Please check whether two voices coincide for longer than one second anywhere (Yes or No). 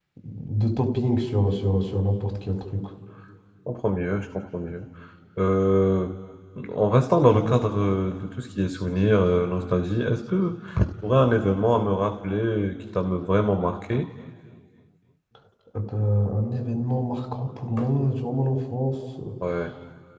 No